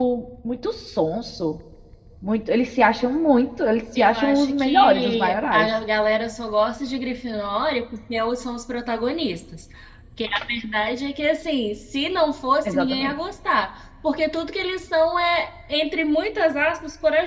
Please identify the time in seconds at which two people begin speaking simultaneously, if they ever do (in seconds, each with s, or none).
4.0 s